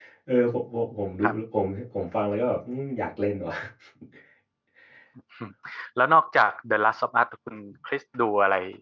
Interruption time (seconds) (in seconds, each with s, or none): none